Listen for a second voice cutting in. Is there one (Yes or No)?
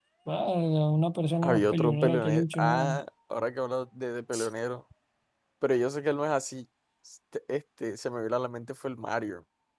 Yes